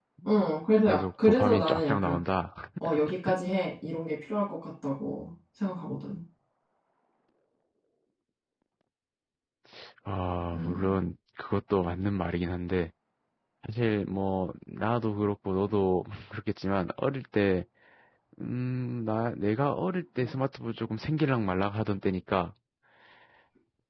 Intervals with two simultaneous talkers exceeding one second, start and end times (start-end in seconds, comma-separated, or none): 0.9-2.2